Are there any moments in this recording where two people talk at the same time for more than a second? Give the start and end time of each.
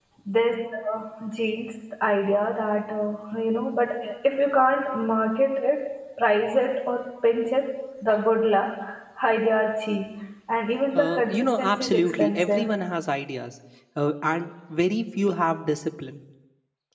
10.9-12.7

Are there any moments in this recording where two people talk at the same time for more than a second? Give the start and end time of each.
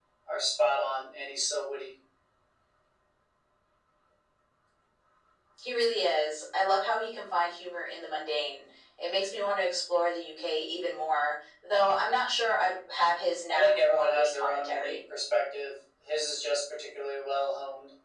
13.5-15.0

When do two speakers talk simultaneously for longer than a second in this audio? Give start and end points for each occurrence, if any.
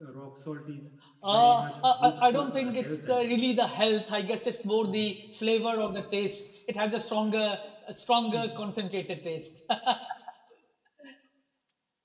1.2-3.4

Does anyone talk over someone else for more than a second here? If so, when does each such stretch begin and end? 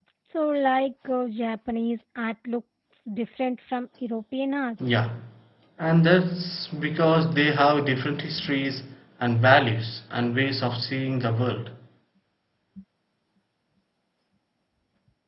none

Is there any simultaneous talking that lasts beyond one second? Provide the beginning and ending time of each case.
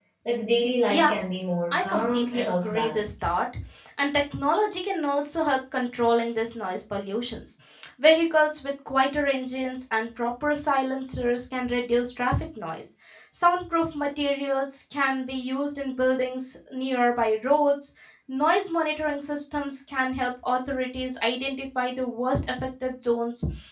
1.7-3.1

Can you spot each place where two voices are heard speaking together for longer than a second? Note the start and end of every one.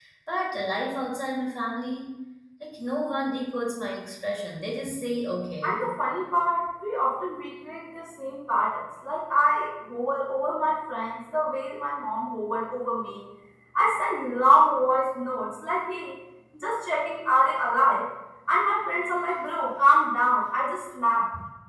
none

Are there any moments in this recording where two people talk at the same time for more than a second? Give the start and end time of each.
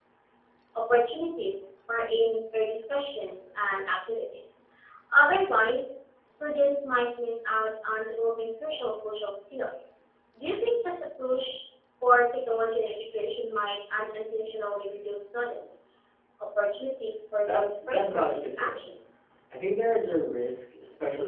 17.4-18.9

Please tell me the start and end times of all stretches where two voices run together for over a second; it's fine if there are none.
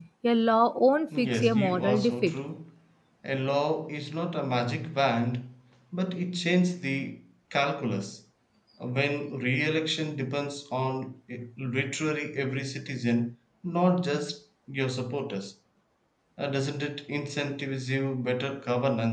1.2-2.4

